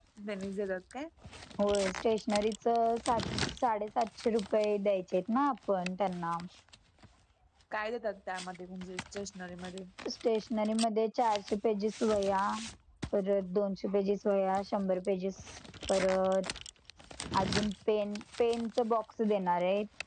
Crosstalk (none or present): none